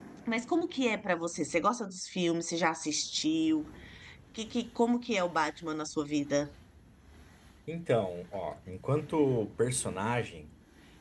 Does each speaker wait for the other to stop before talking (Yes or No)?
Yes